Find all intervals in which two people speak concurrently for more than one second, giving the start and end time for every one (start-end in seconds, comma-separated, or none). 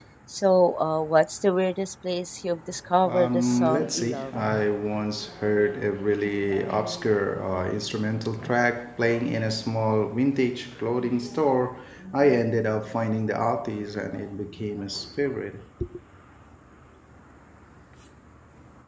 3.0-4.3